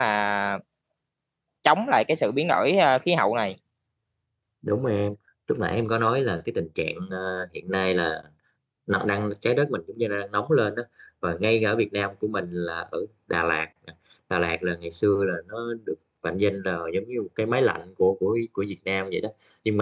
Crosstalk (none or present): none